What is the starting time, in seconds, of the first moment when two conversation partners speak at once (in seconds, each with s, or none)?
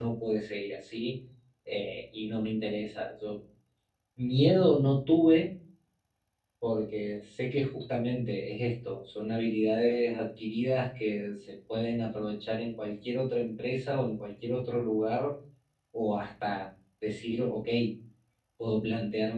none